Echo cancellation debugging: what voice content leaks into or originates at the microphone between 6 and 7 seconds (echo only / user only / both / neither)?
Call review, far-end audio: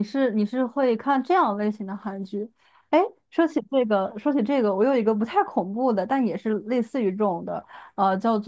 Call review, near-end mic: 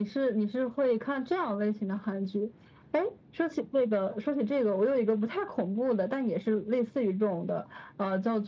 echo only